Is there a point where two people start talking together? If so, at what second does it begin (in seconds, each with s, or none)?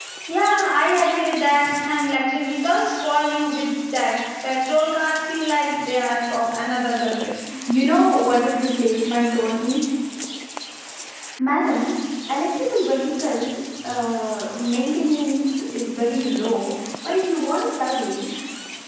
none